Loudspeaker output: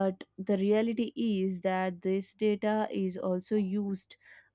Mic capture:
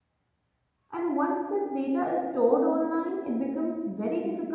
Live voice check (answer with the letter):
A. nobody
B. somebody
B